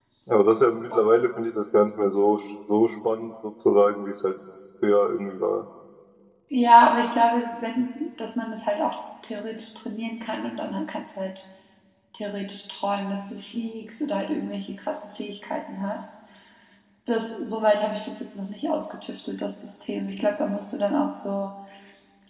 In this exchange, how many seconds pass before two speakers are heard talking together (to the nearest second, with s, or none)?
none